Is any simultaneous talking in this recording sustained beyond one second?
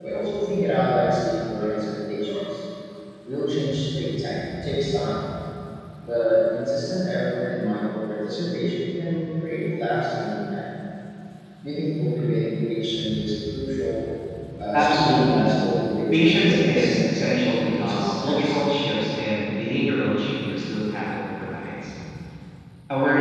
Yes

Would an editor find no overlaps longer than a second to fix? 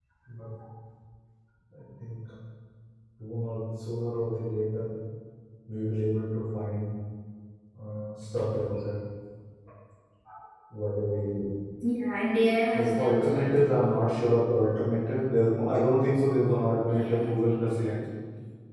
No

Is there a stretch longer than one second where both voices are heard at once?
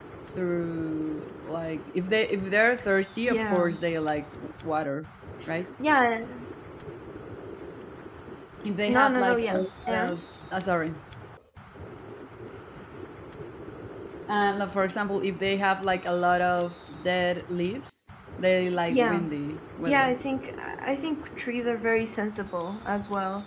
Yes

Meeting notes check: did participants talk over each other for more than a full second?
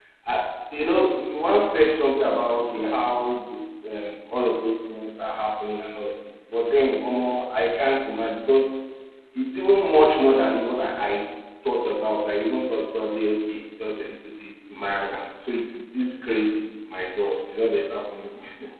No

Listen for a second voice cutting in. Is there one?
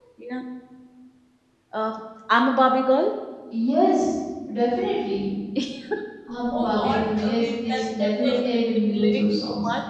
Yes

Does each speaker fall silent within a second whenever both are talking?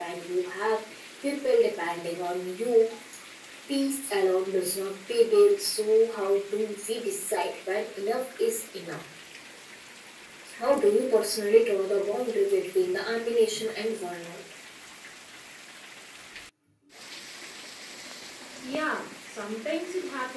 Yes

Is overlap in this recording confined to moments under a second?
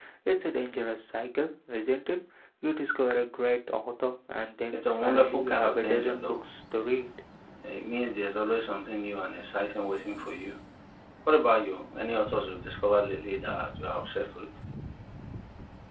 No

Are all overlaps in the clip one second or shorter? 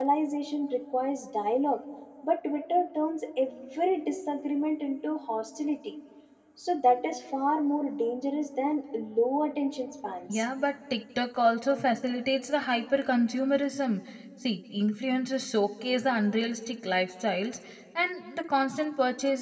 Yes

